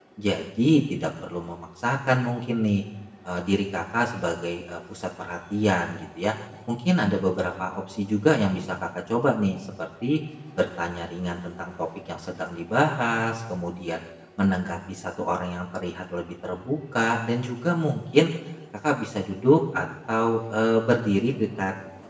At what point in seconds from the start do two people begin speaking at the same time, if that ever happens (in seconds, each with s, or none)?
none